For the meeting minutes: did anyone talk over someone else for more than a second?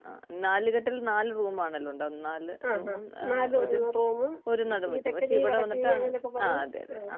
Yes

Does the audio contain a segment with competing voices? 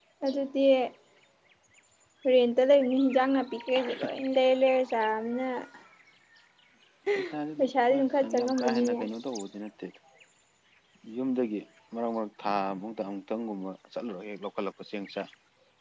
Yes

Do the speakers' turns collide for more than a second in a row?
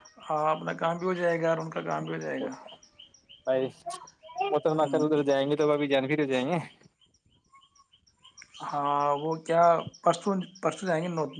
No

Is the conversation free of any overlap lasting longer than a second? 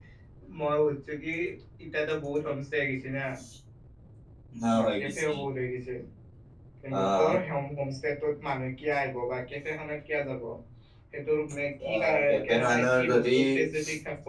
No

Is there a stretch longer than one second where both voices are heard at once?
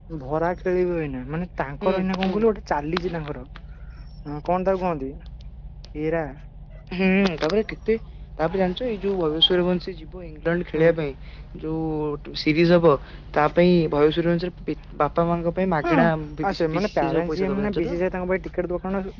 Yes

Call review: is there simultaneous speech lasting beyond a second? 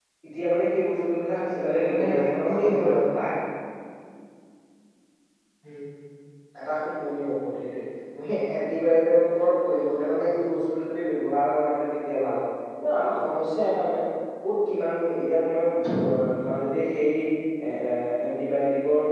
Yes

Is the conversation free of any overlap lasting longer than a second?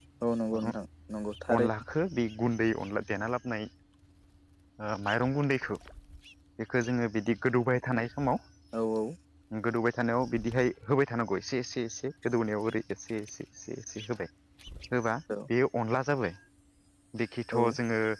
Yes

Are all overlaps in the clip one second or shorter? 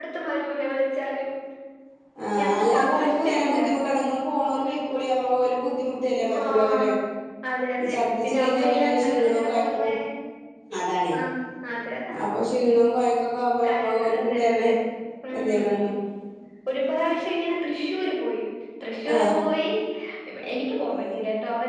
No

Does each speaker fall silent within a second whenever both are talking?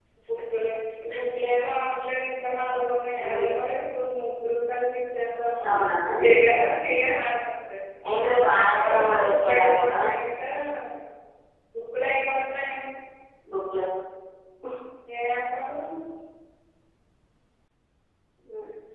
No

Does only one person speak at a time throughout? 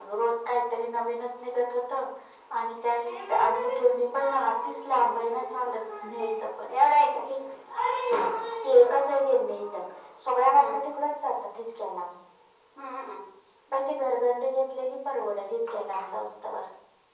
No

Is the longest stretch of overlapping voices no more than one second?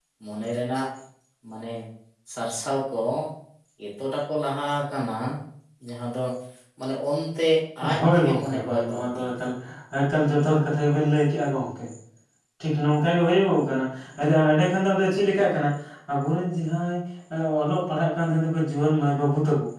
No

